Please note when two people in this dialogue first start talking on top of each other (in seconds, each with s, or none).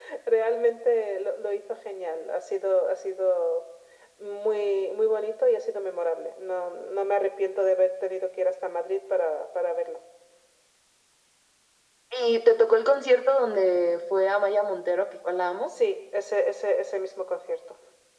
none